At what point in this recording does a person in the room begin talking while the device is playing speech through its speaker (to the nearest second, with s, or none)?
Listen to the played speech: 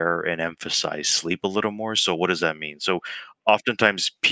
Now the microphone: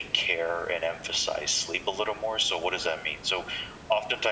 none